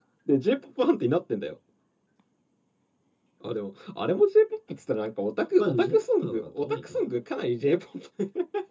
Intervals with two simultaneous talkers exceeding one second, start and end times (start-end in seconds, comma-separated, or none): 5.6-7.0